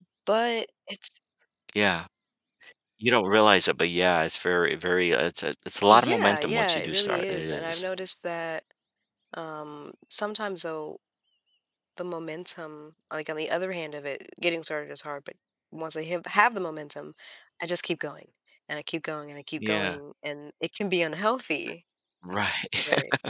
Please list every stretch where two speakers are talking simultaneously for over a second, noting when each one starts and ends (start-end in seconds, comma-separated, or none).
5.9-7.8